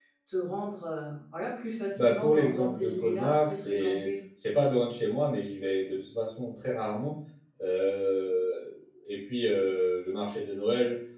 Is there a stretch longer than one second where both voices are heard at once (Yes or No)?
Yes